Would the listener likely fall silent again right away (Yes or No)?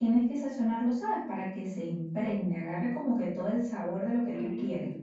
No